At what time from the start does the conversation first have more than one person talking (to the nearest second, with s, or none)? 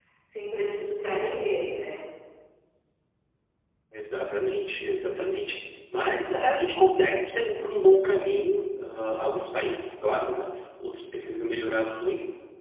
none